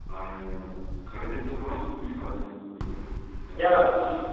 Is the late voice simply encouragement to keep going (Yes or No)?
No